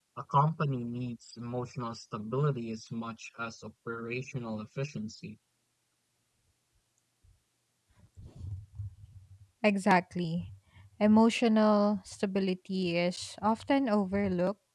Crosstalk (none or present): none